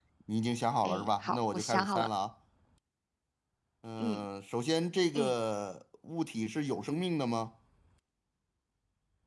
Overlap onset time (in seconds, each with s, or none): 0.8 s